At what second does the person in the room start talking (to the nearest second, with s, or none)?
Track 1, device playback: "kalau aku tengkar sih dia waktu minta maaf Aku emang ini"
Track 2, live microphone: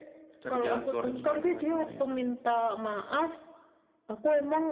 0 s